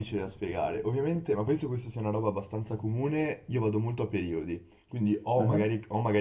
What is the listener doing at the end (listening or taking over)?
listening